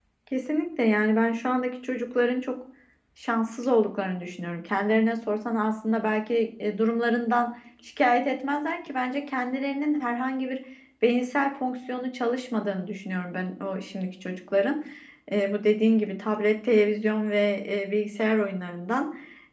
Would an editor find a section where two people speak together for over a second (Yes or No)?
No